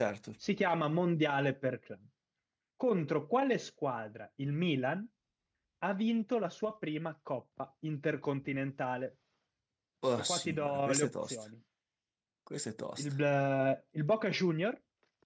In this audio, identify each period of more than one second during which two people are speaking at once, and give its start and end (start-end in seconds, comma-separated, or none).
10.2-11.4